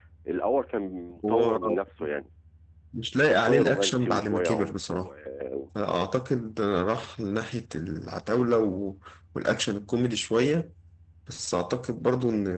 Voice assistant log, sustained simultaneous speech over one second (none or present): present